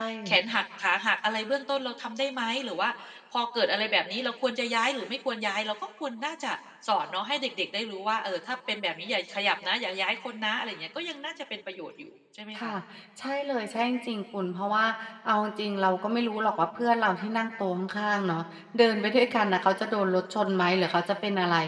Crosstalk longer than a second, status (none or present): none